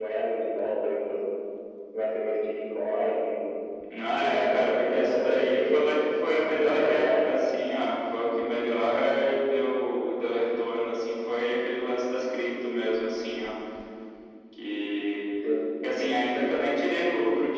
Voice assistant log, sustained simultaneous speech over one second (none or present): present